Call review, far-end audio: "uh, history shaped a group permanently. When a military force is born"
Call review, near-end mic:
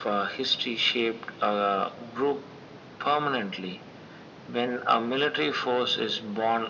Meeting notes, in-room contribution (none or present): none